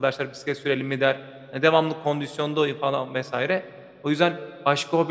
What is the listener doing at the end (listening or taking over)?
listening